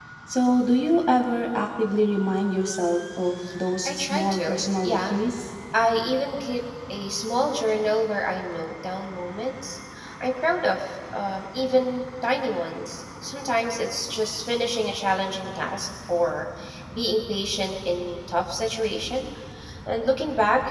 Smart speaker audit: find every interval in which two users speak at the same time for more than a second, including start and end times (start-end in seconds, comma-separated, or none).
3.9-5.1